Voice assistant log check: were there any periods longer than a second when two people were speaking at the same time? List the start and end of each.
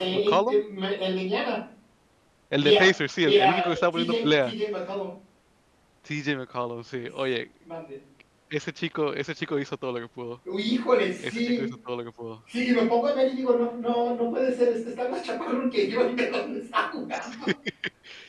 3.2-4.5

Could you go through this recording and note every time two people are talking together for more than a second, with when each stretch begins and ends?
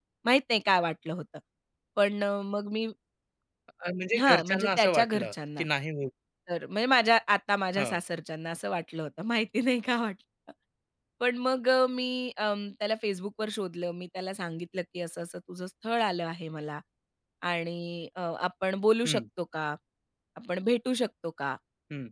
4.2-5.6

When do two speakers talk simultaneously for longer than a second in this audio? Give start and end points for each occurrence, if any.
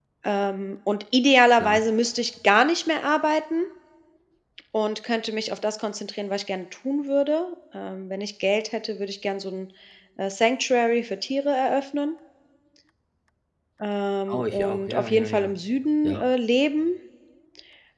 14.3-15.5

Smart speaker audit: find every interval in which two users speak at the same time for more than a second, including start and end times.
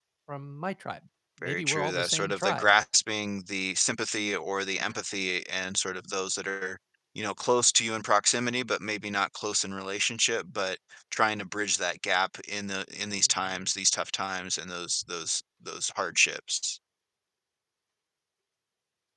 1.4-2.7

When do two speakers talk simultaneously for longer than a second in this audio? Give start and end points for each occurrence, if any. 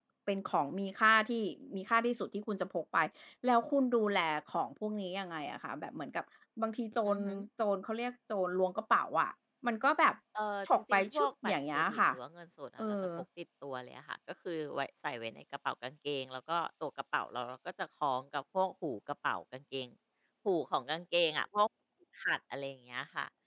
10.7-12.0

